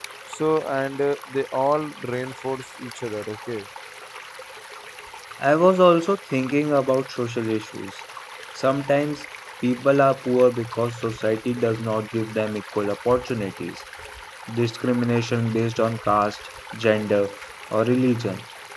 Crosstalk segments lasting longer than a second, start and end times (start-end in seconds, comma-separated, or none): none